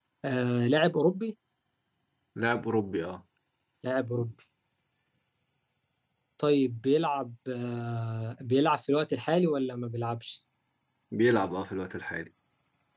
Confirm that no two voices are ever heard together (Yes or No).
Yes